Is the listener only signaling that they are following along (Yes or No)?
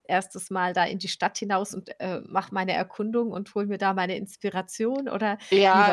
No